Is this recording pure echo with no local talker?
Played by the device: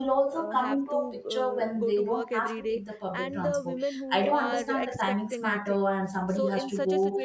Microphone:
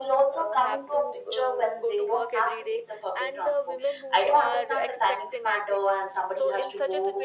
Yes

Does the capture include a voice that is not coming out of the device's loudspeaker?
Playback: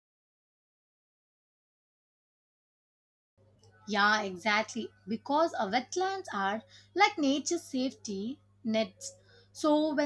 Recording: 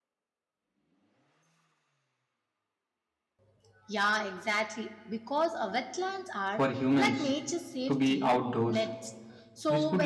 Yes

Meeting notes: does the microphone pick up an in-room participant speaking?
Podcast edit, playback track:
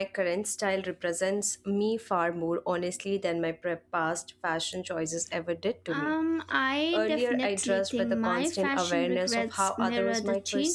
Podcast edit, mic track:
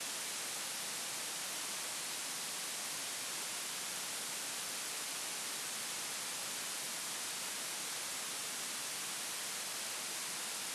No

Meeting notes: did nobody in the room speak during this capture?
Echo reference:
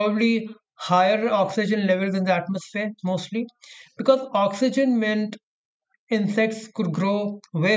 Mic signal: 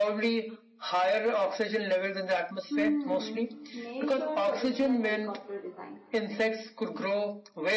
No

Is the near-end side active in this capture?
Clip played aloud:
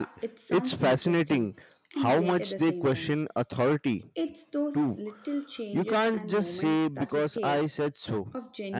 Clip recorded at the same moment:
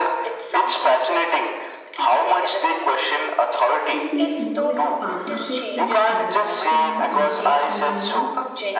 Yes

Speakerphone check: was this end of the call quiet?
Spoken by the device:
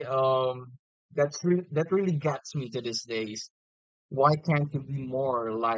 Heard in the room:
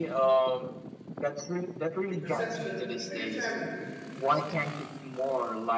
No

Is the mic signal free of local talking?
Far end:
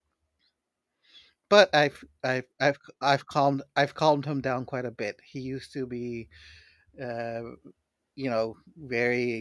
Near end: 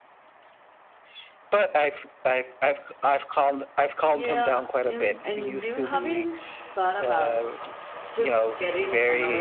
No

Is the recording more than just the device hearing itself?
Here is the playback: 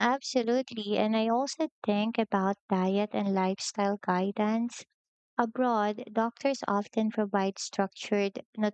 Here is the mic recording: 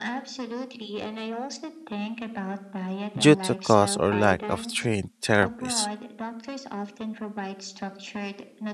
Yes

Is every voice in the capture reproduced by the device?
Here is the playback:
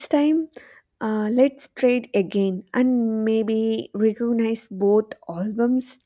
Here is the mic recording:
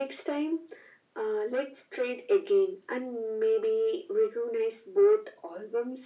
Yes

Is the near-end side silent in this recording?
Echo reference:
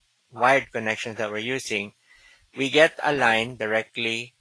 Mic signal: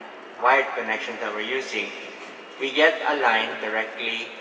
Yes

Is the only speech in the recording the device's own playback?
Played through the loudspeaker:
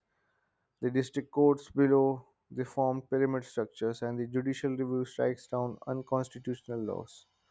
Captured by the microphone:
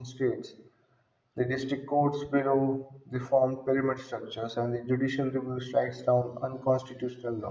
Yes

